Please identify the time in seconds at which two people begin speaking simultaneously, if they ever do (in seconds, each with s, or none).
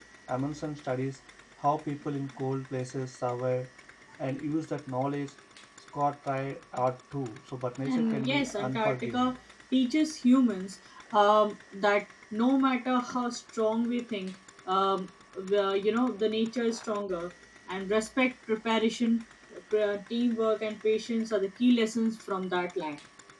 7.8 s